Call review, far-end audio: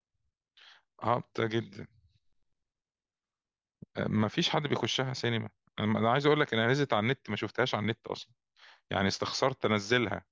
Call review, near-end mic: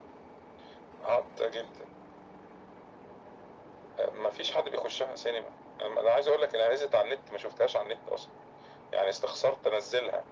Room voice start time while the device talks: none

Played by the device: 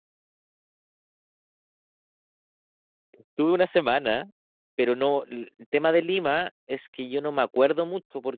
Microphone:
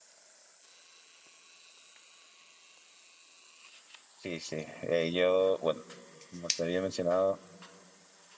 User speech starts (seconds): 4.1 s

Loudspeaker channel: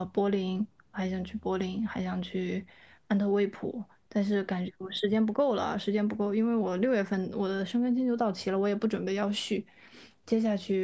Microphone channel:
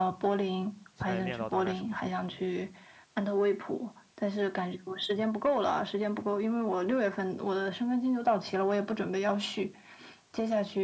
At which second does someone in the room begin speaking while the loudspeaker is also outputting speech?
0.9 s

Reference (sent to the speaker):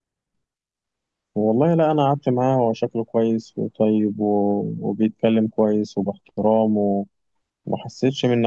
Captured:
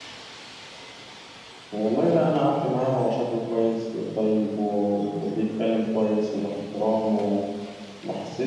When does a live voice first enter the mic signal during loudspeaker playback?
none

